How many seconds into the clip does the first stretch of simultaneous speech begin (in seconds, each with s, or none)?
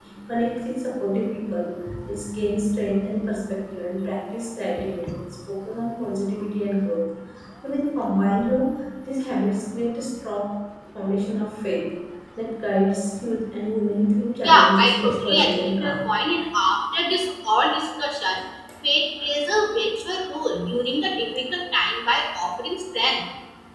14.4 s